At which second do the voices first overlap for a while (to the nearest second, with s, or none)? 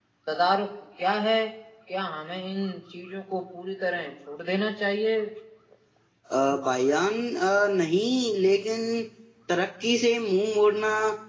none